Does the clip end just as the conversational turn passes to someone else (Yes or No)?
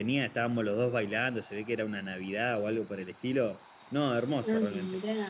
Yes